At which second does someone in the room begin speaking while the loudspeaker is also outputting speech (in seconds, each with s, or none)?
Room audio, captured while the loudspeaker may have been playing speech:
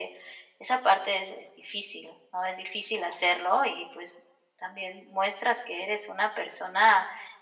none